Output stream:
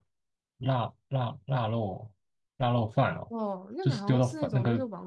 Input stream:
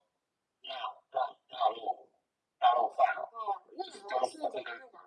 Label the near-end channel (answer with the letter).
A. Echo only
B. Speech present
A